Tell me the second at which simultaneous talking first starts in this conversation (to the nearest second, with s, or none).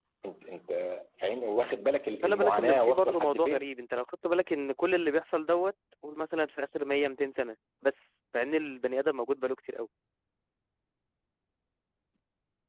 2 s